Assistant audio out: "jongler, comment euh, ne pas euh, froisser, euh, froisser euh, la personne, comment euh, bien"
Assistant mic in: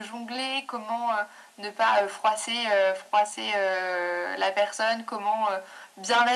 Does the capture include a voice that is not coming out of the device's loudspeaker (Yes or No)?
No